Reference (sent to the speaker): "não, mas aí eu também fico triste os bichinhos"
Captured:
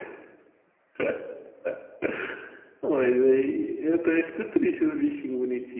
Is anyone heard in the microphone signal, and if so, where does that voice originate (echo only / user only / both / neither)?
echo only